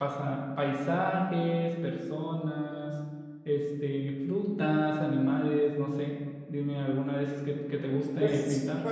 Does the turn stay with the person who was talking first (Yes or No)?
No